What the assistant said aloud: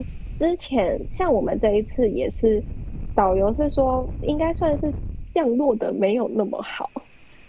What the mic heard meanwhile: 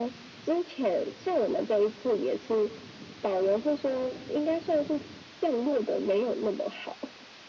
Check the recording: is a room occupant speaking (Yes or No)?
No